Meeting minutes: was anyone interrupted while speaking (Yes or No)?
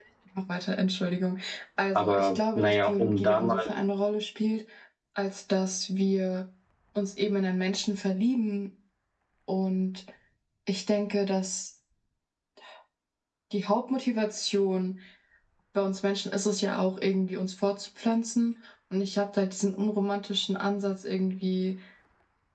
Yes